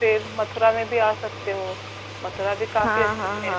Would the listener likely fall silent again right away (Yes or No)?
No